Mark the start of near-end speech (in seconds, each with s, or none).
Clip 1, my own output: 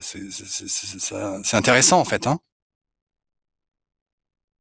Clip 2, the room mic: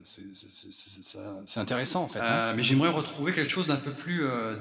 2.2 s